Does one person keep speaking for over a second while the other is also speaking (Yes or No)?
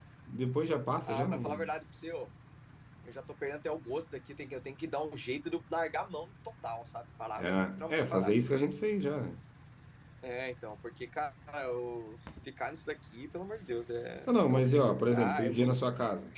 Yes